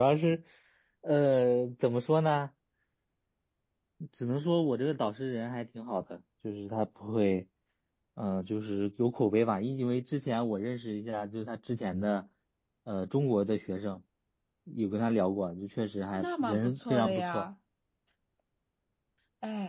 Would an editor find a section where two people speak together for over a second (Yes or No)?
Yes